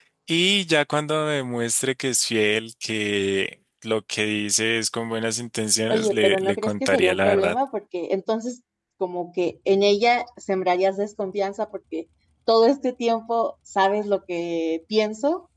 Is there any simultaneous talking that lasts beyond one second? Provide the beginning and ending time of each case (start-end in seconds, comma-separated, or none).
5.9-7.6